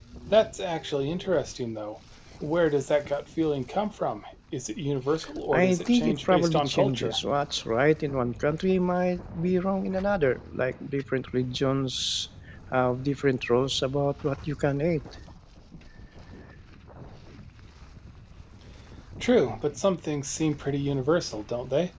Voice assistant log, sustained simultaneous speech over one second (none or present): present